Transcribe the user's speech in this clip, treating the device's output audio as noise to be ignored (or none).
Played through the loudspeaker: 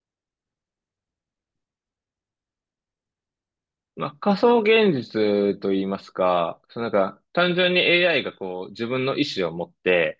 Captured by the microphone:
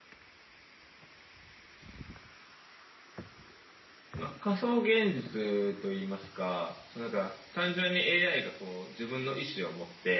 none